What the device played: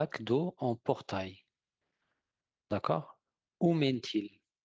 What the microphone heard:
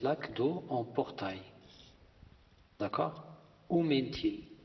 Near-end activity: none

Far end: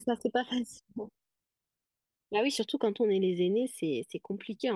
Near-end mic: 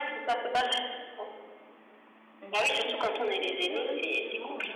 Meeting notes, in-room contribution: present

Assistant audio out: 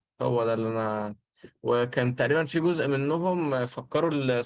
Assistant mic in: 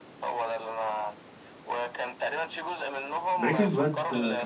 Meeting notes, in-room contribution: present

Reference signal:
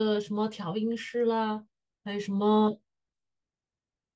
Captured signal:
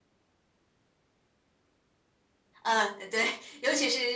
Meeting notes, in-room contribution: present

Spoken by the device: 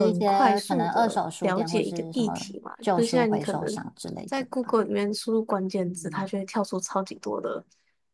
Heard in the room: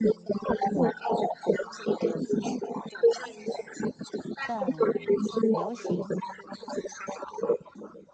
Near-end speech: present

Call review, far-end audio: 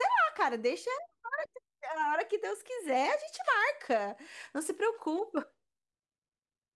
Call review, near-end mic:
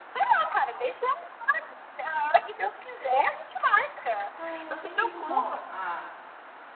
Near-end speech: present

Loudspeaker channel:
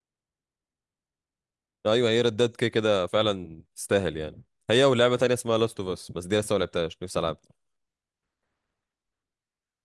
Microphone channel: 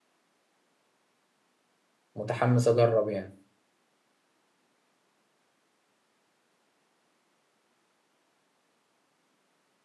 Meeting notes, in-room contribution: present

